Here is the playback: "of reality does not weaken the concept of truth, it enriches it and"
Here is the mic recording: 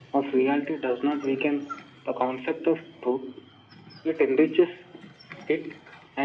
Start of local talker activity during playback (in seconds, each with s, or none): none